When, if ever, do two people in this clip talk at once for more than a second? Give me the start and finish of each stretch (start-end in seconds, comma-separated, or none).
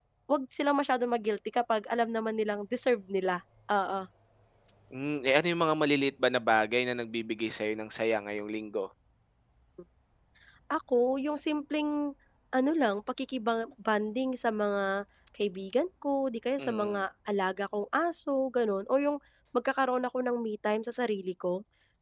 none